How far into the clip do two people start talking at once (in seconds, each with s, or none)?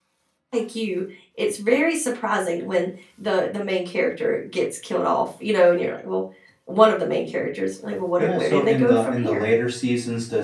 8.2 s